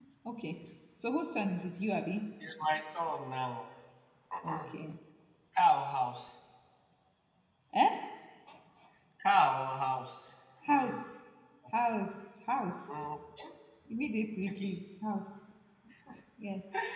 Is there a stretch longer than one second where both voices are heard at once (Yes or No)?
No